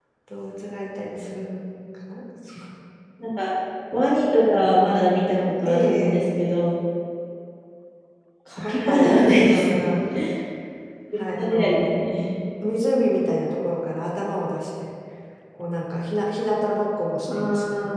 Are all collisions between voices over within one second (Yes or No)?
No